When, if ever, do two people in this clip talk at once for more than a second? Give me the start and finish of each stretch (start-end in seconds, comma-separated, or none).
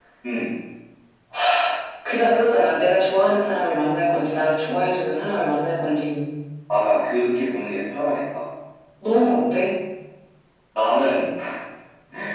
none